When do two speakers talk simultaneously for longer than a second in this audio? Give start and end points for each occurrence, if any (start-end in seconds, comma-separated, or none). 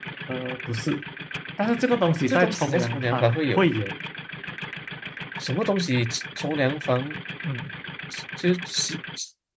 2.3-3.6